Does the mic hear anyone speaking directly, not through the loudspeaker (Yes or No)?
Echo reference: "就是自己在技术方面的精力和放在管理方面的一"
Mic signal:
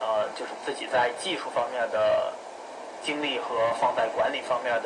No